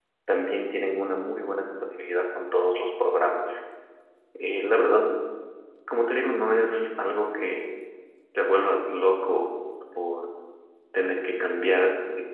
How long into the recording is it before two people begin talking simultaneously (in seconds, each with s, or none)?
none